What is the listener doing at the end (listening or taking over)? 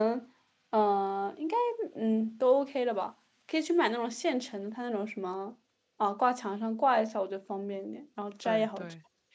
taking over